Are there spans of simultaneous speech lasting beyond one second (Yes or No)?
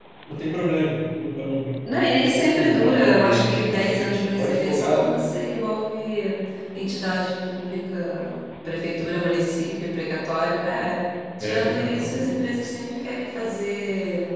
Yes